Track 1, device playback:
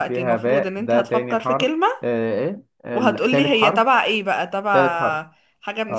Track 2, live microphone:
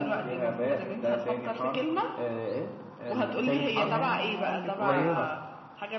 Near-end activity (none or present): present